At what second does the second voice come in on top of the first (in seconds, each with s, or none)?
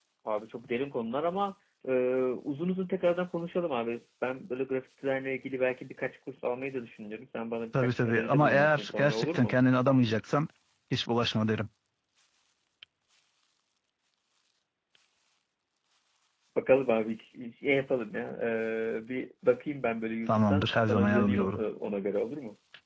7.8 s